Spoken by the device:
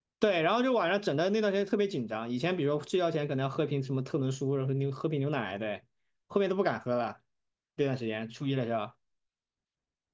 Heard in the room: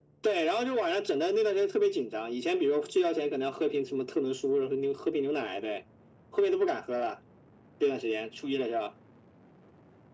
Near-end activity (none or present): none